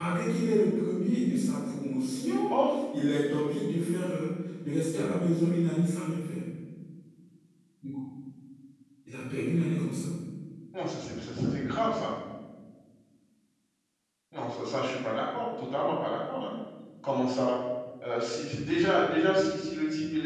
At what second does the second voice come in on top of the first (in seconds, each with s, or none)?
none